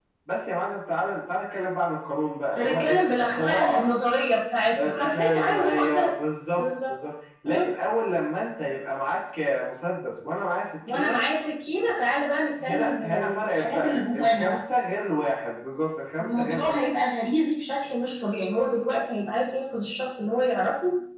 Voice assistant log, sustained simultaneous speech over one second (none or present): present